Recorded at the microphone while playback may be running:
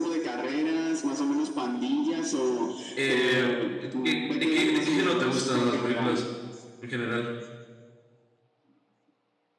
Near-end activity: present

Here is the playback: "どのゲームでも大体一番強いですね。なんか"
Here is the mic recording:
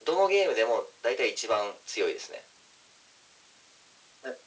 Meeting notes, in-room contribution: none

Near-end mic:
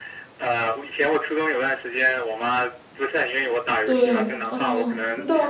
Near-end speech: present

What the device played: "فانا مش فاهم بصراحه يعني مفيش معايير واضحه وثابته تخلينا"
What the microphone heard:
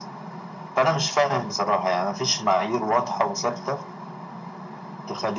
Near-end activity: none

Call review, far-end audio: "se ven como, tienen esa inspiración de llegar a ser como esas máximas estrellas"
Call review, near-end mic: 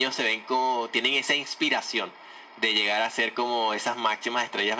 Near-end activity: none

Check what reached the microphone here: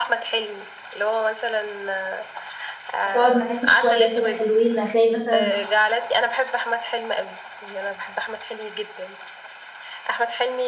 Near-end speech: present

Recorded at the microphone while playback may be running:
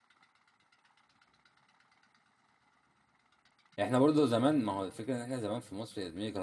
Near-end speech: present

